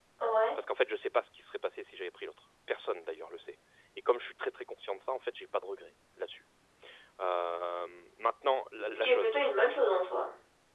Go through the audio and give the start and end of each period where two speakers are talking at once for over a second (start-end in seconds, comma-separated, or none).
none